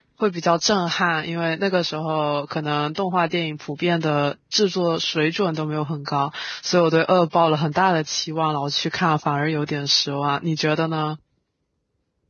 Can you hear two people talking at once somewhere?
No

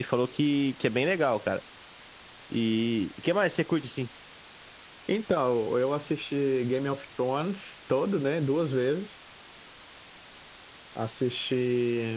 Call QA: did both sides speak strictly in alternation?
Yes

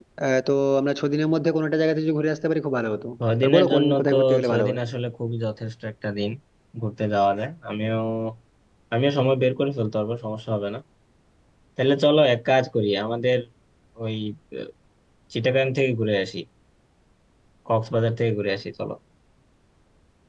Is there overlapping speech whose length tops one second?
Yes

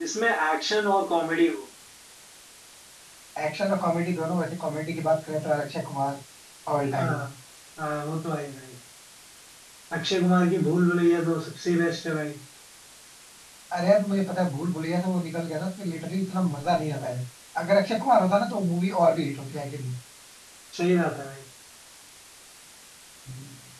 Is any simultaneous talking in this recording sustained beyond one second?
No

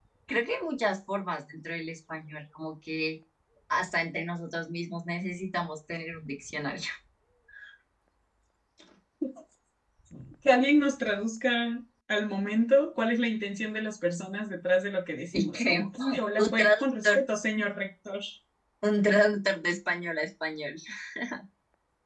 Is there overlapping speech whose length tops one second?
Yes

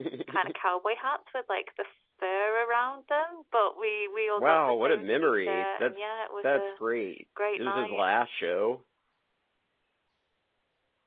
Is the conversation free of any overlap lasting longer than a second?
No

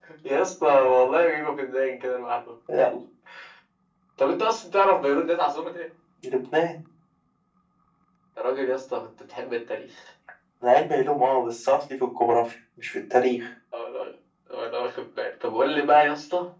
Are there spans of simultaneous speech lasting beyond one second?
No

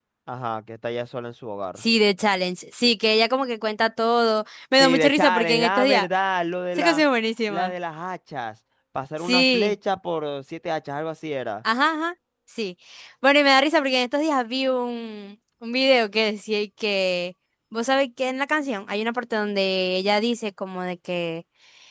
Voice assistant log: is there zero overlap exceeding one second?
No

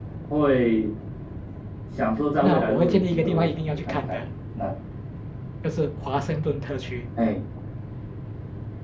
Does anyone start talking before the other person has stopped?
Yes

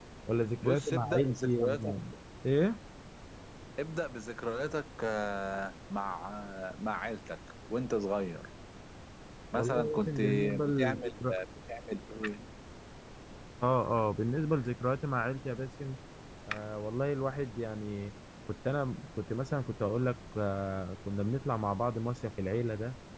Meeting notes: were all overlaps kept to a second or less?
No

